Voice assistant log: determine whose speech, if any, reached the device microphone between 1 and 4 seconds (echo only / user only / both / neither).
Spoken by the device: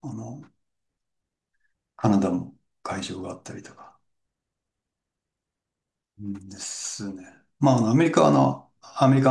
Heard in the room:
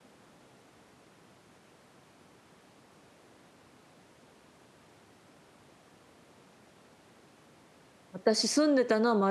neither